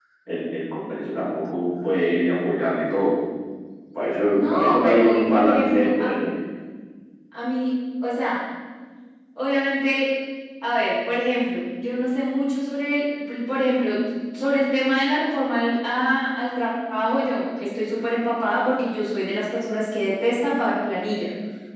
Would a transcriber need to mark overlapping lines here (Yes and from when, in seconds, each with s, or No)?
Yes, from 4.3 s